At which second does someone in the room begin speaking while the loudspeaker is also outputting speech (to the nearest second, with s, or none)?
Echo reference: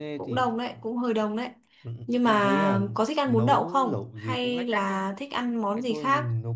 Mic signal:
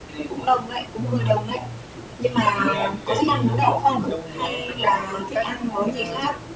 1 s